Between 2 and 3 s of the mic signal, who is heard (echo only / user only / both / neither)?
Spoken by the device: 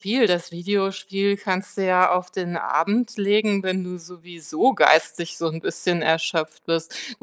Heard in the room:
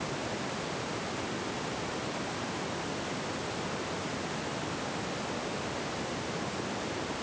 neither